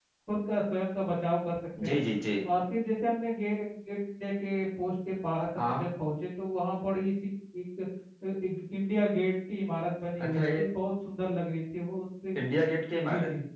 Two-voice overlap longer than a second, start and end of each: none

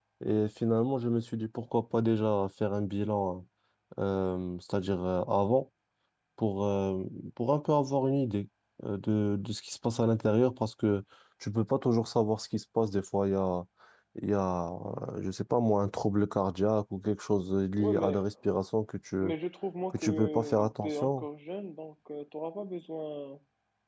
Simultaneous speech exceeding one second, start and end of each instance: 19.9-21.2

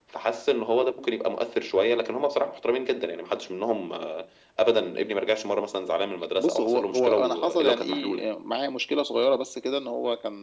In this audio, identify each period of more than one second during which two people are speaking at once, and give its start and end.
6.4-8.3

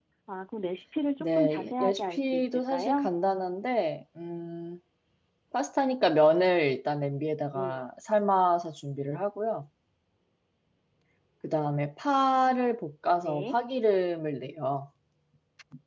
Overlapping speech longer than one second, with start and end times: 1.2-3.1

